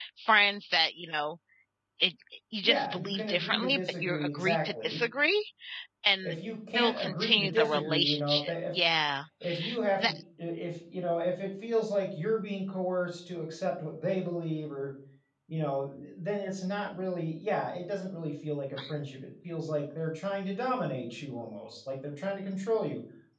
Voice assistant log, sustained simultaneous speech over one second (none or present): present